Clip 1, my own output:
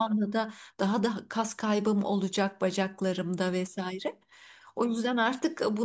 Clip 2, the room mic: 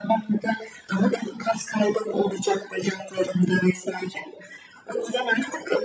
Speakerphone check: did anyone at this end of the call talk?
No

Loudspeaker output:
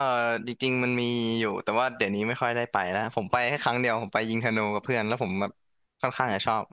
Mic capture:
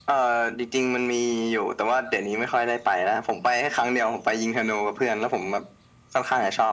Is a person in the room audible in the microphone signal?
No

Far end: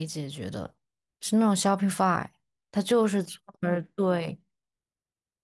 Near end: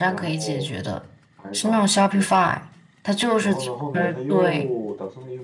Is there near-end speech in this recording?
Yes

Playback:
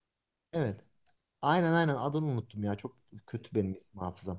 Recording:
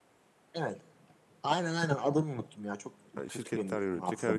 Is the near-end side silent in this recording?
No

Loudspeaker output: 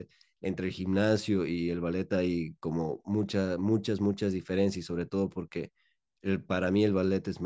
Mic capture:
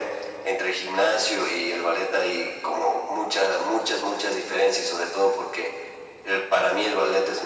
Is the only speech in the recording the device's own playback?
Yes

